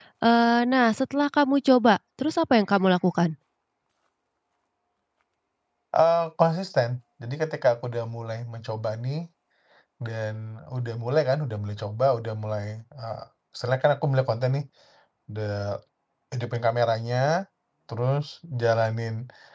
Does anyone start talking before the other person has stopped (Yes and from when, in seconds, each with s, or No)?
No